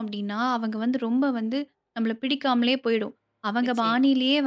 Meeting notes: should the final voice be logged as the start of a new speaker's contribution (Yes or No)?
No